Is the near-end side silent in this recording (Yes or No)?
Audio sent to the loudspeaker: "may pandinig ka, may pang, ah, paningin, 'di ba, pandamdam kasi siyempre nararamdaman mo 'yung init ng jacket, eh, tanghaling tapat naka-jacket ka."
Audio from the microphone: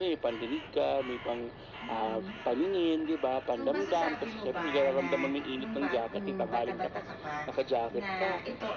No